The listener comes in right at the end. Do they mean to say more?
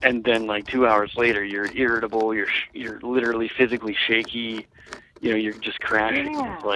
No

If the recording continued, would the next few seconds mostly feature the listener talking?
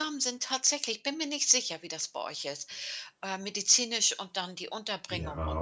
Yes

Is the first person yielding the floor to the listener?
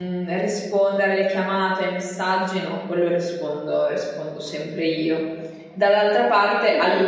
No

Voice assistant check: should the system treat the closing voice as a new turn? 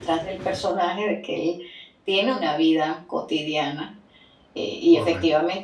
No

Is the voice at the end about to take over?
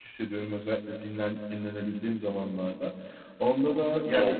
No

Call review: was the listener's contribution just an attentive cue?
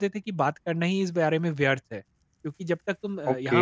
Yes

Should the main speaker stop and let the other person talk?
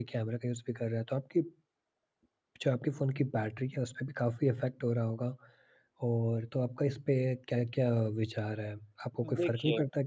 No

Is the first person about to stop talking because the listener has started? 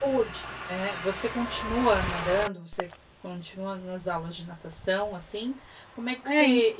No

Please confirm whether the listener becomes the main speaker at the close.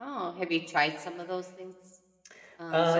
Yes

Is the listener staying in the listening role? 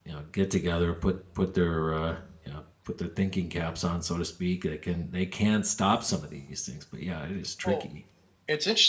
No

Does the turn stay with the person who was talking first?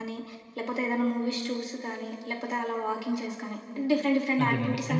No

